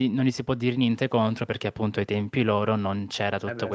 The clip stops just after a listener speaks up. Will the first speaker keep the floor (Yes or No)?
Yes